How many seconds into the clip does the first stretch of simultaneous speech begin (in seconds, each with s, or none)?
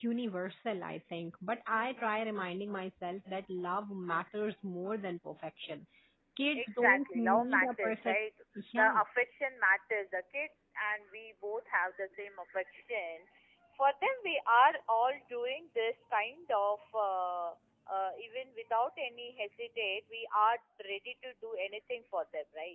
6.5 s